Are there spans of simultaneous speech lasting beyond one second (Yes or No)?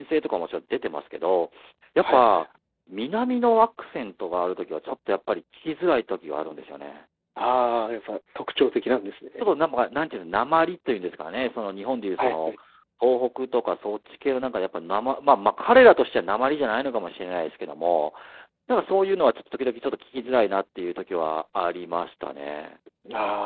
No